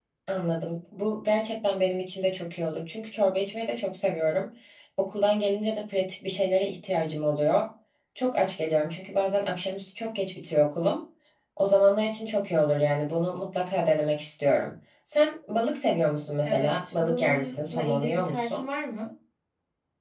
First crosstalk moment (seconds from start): 16 s

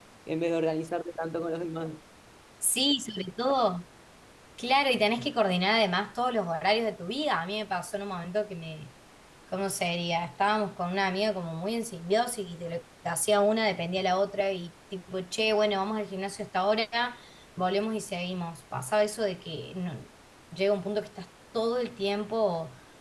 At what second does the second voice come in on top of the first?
none

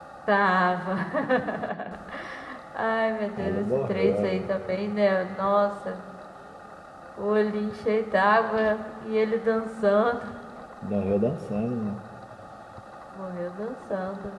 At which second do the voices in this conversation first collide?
3 s

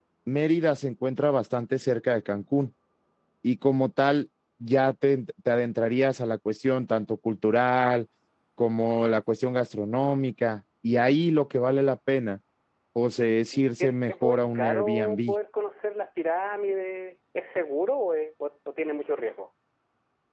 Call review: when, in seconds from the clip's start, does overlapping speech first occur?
14 s

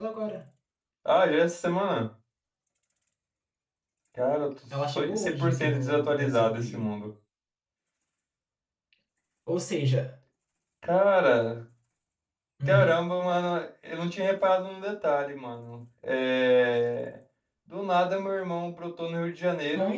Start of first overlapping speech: 5 s

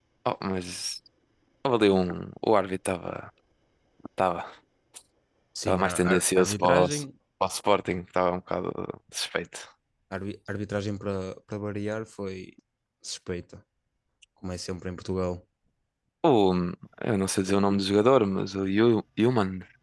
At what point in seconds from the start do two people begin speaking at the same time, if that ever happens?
6 s

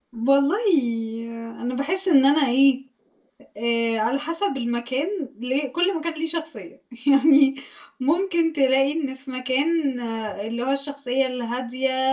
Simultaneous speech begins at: none

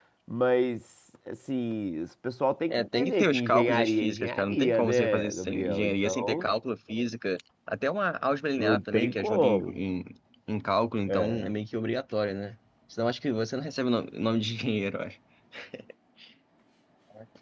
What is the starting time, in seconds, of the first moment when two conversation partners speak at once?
3 s

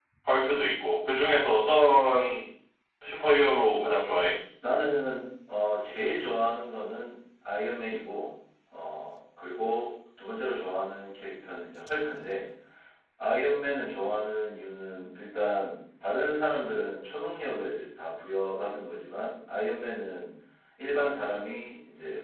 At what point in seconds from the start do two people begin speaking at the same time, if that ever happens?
none

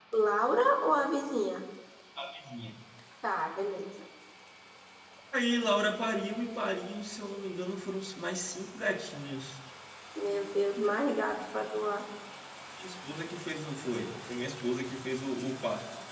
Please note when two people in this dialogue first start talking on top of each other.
none

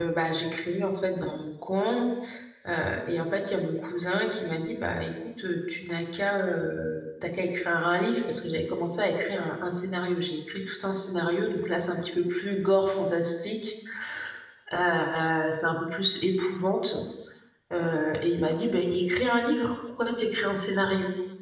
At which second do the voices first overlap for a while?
none

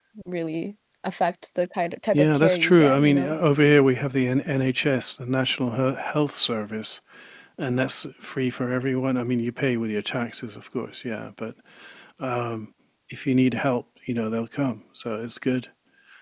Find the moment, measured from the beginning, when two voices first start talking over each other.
2 s

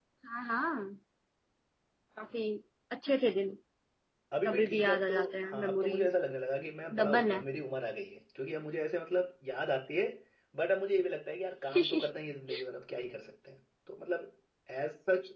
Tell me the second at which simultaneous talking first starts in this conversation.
4 s

